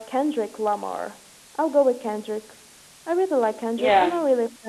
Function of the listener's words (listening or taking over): listening